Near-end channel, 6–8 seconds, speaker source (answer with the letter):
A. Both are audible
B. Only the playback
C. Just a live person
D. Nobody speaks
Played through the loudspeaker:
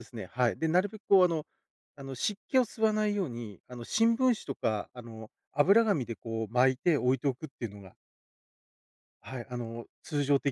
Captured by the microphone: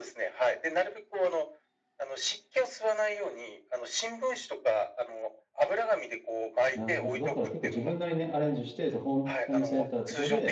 A